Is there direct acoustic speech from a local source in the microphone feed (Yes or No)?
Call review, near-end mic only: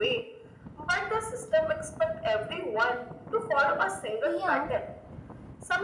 Yes